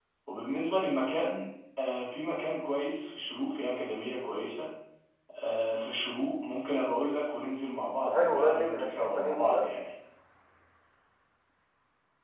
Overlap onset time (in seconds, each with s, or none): 8.0 s